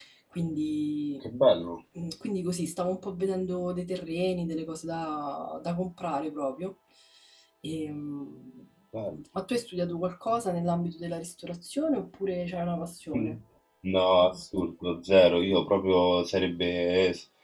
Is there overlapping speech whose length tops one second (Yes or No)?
No